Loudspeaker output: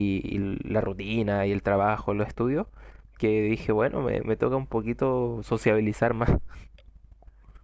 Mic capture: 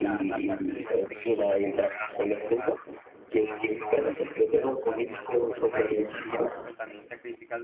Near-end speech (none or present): present